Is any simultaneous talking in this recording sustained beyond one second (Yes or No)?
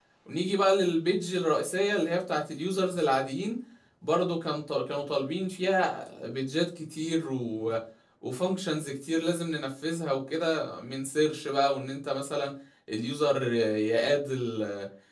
No